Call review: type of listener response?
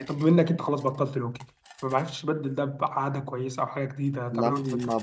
taking over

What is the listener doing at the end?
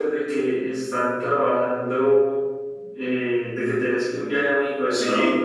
taking over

